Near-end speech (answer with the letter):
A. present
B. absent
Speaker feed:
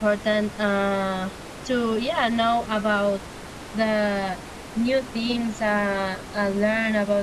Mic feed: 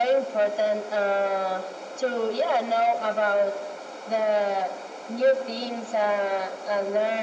B